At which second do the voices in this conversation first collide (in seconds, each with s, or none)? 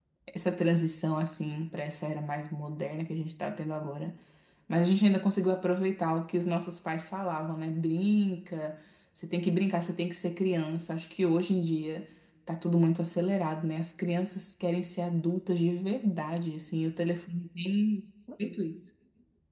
none